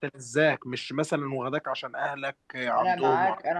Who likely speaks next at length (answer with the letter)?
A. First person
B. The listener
B